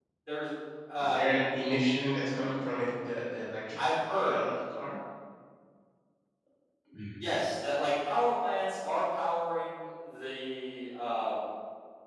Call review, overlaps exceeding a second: none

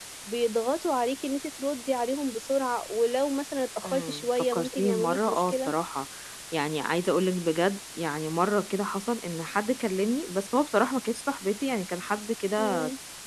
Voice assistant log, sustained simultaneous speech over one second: present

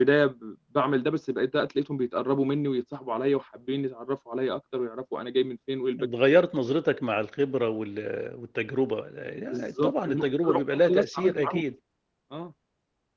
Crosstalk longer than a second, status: present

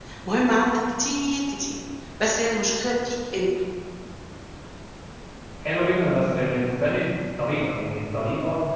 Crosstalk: none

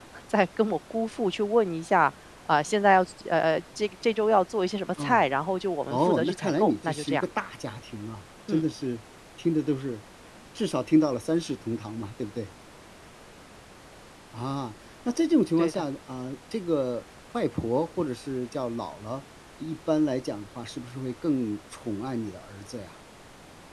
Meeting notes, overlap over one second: present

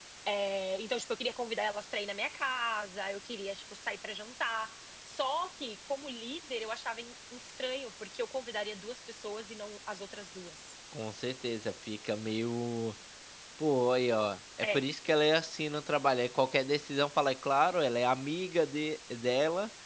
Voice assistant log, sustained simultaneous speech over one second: none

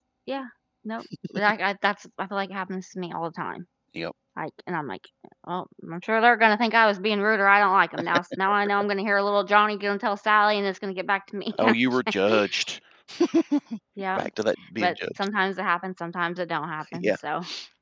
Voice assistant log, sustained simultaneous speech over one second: none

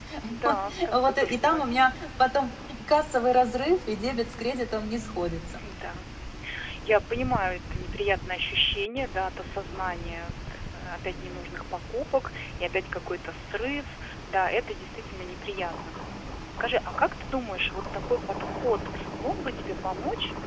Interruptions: present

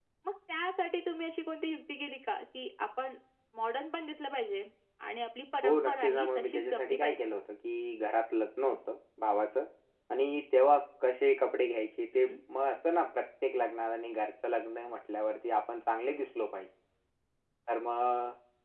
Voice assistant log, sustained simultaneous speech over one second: present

